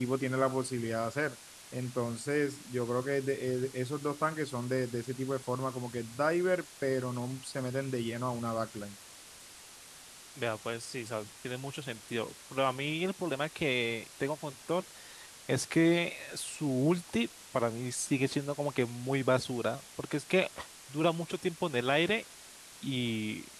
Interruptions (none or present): none